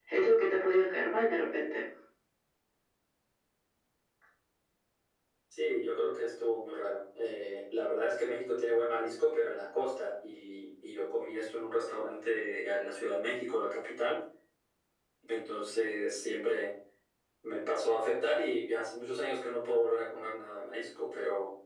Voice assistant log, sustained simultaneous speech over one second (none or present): none